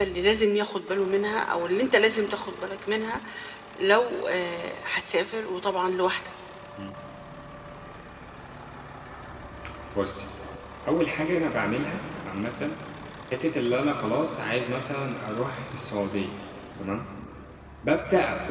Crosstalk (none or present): none